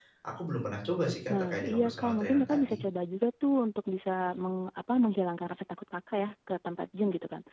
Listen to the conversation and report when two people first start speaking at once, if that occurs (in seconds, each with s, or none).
1.3 s